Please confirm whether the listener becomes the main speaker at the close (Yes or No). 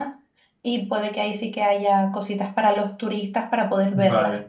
Yes